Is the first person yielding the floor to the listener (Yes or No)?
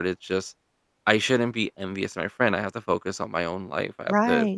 Yes